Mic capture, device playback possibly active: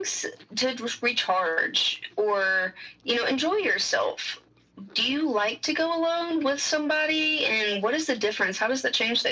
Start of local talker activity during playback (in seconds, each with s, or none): none